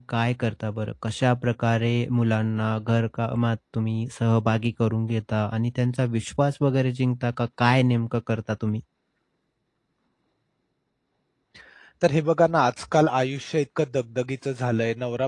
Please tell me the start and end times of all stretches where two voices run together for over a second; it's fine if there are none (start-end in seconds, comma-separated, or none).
none